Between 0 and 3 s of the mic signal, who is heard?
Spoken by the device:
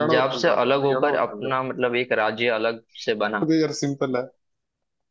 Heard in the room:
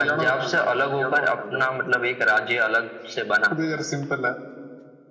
echo only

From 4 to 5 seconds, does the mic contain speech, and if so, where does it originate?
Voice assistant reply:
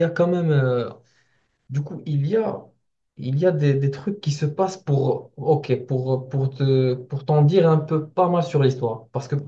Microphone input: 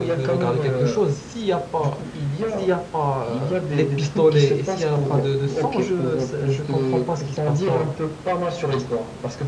both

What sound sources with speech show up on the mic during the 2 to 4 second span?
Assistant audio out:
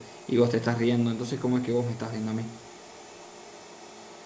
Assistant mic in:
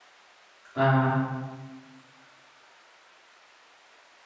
neither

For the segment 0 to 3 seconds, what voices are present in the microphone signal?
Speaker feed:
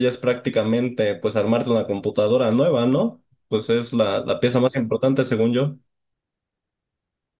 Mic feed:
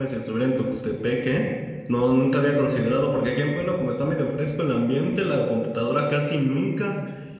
user only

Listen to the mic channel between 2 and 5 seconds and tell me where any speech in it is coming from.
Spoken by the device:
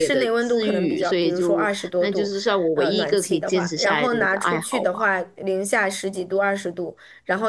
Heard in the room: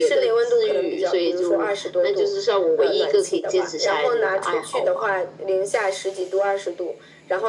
echo only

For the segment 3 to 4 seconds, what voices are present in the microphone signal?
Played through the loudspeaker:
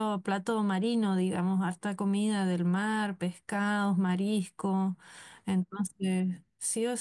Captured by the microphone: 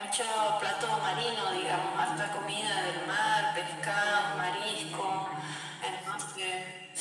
both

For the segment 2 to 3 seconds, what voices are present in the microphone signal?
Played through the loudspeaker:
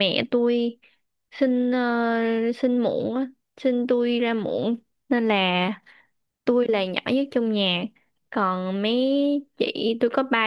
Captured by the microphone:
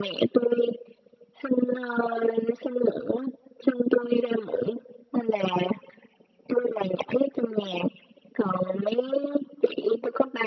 echo only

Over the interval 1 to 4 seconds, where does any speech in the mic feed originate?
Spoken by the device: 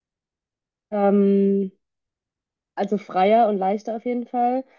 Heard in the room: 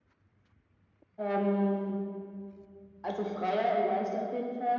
echo only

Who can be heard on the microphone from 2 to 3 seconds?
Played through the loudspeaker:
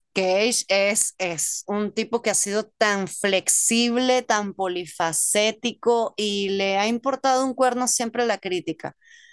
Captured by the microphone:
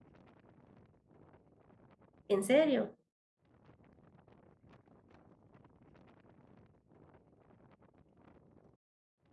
user only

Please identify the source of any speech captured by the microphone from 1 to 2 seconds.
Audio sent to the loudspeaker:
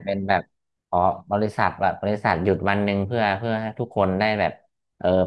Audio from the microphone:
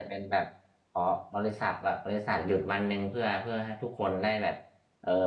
echo only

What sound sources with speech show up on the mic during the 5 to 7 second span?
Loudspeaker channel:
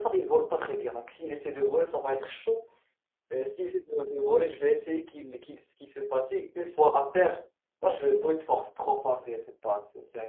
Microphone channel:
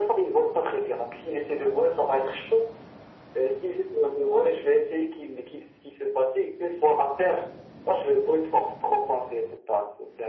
echo only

